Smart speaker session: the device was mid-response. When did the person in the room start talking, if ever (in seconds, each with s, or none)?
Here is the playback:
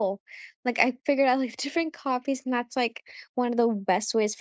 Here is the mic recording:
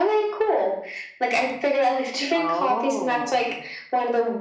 2.4 s